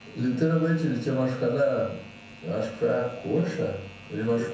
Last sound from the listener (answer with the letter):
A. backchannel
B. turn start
A